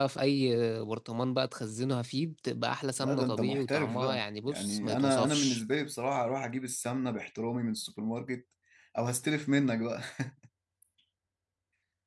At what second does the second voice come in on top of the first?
3.0 s

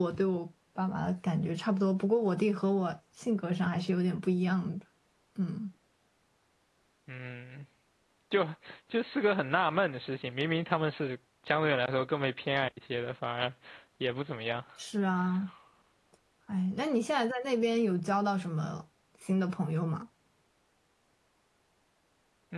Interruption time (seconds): none

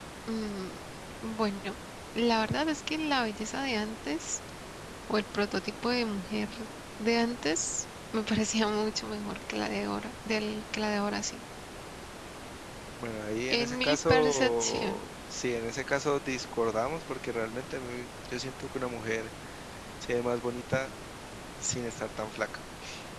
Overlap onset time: 13.5 s

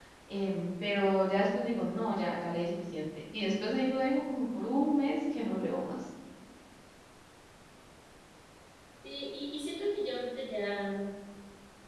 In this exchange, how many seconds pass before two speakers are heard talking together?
none

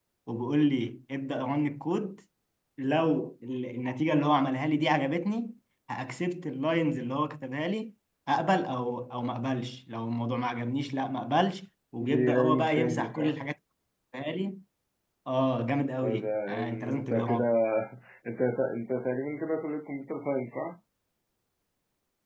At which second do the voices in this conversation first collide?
12.0 s

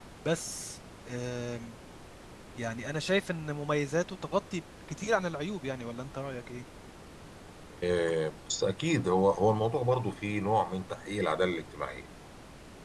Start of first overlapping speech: none

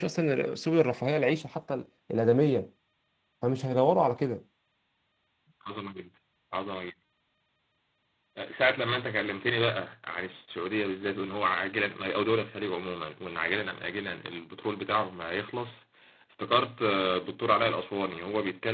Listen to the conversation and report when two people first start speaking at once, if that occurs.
none

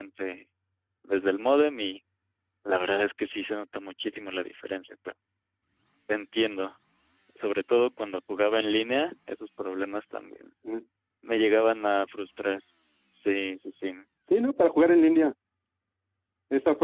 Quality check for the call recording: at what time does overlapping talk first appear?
none

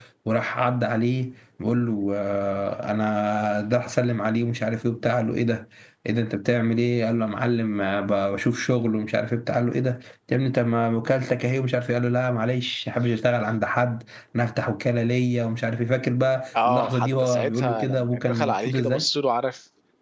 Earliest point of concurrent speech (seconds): 16.6 s

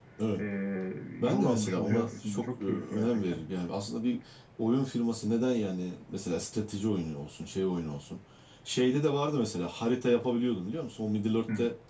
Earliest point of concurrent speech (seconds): 1.2 s

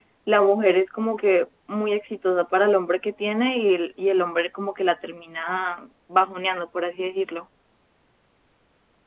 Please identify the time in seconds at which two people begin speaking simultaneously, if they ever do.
none

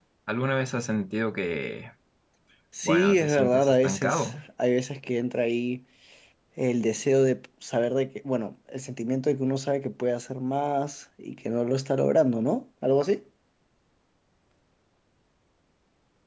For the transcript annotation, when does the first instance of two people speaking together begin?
2.8 s

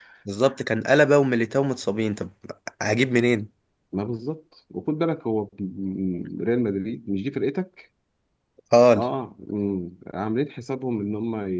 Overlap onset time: none

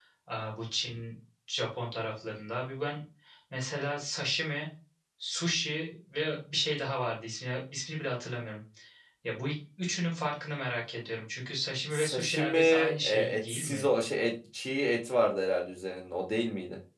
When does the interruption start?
11.9 s

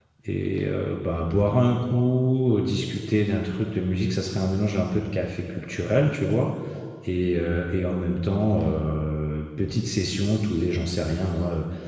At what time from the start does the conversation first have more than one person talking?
none

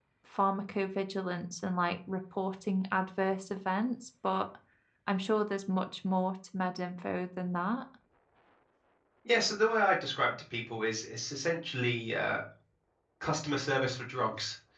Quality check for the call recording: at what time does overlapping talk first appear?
none

